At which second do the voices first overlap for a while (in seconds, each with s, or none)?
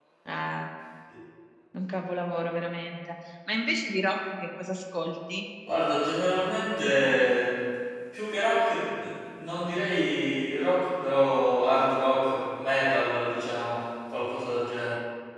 none